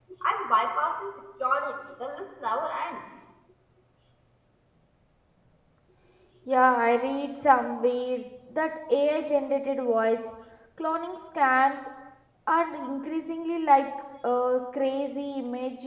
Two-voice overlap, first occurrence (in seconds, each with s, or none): none